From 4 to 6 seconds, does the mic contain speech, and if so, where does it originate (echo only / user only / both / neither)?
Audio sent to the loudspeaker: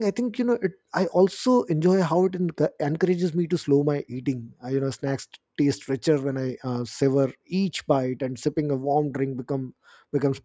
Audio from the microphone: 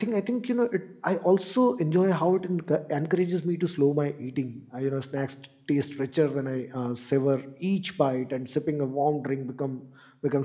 echo only